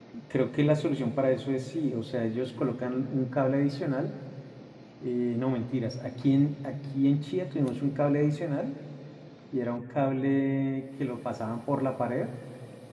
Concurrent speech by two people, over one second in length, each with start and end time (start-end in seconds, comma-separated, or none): none